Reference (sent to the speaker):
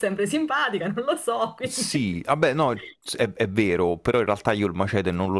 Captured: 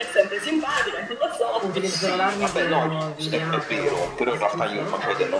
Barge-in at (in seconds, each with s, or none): 1.6 s